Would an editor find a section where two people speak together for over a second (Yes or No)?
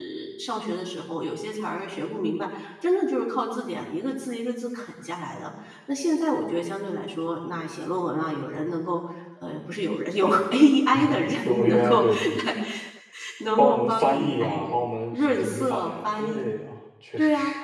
Yes